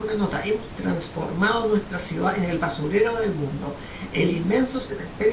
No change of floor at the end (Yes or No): Yes